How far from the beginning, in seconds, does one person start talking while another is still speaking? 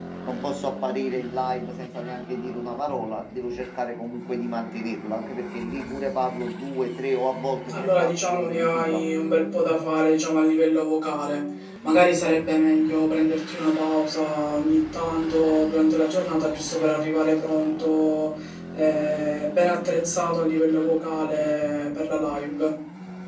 7.7 s

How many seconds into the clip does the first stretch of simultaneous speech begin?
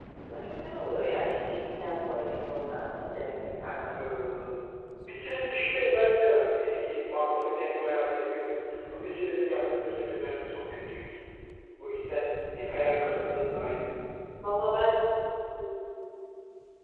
none

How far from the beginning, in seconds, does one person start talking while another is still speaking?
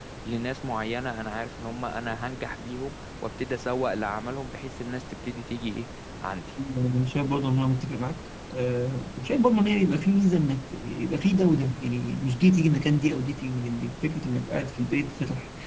none

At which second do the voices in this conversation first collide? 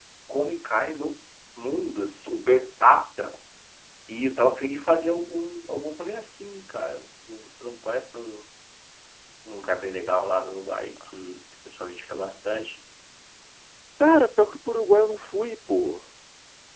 none

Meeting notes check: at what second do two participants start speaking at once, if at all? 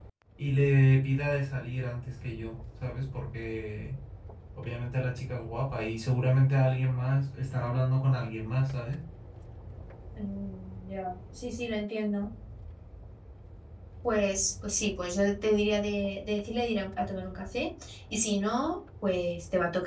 none

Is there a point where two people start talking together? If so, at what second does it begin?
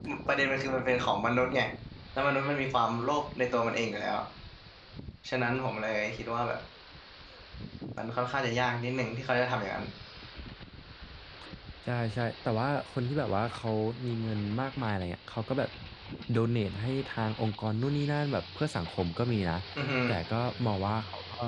none

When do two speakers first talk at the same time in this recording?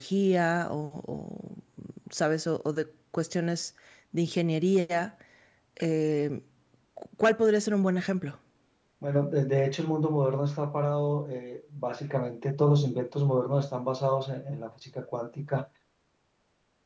none

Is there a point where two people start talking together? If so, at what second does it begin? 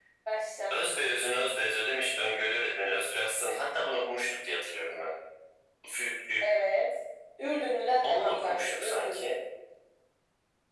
8.0 s

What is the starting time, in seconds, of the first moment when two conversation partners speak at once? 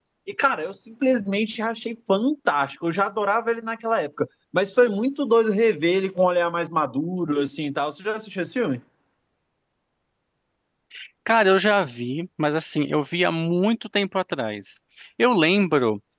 none

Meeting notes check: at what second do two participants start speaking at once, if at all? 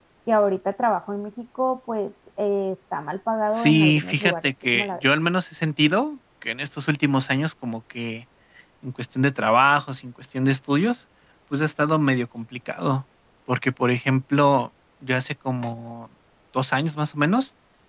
3.5 s

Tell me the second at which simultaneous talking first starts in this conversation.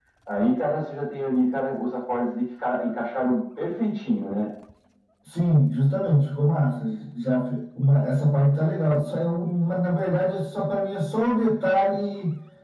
none

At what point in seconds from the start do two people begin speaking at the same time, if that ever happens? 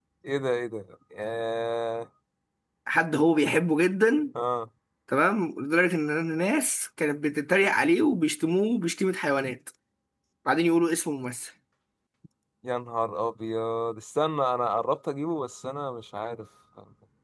none

